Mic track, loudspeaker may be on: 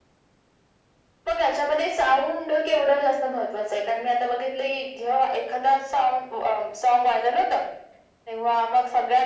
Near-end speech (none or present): none